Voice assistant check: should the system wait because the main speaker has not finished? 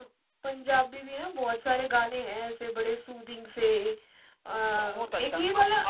No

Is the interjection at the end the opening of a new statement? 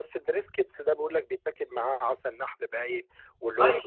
No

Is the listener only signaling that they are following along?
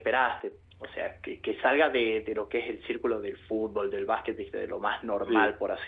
Yes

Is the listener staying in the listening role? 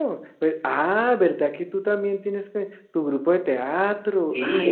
No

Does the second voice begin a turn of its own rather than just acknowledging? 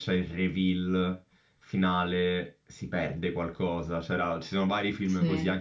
No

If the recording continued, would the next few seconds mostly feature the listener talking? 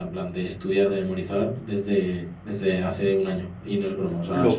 Yes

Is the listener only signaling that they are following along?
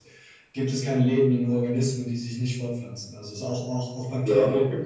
No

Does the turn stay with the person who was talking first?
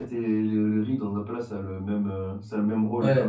No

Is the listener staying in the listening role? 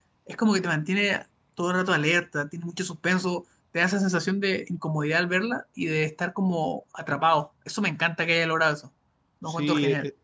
No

